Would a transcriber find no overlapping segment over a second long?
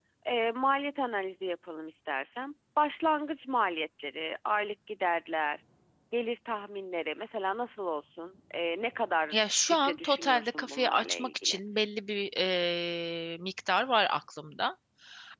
No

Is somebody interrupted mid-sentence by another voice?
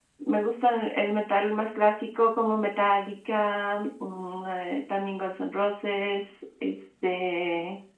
No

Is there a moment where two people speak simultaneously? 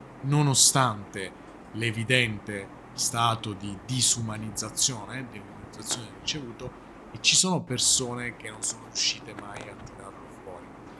No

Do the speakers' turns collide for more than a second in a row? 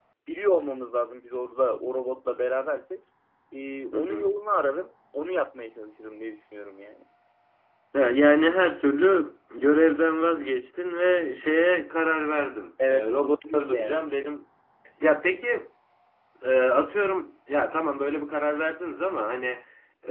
Yes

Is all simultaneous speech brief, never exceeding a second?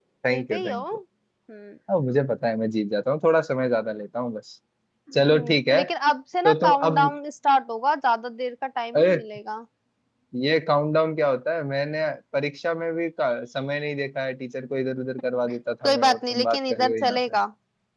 No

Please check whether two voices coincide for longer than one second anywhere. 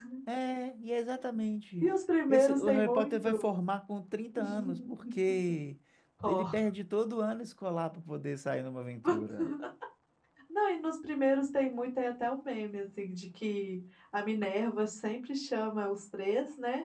Yes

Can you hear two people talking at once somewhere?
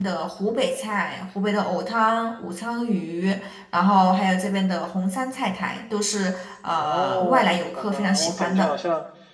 Yes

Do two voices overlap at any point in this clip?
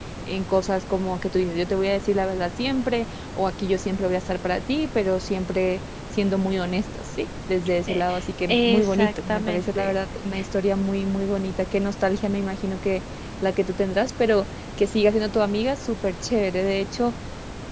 Yes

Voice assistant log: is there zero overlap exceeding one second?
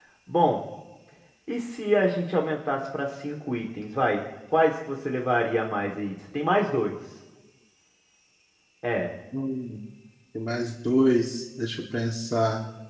Yes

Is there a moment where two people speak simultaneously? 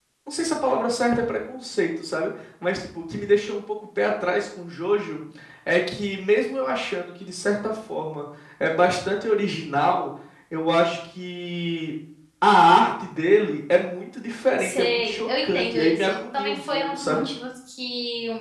Yes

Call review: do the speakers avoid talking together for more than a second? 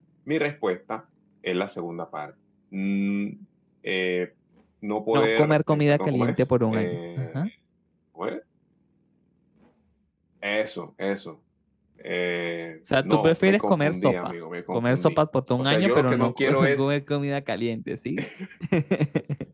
No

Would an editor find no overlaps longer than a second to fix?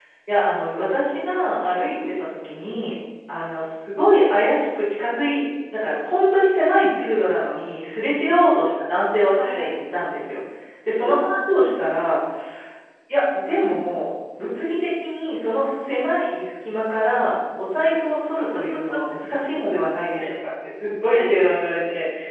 Yes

